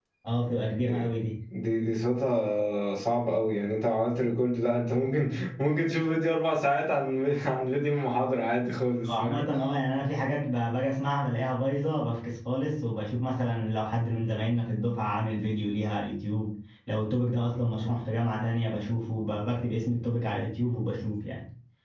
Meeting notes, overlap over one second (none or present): none